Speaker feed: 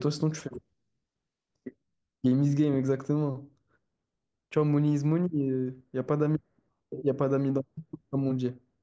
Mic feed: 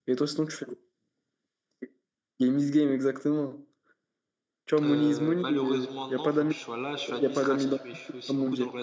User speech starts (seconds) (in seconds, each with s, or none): 4.8 s